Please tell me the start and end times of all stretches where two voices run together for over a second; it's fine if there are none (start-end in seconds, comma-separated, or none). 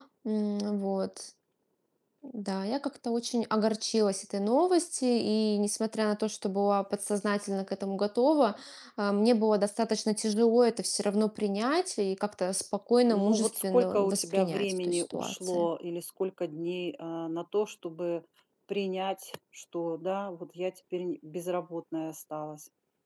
13.1-15.7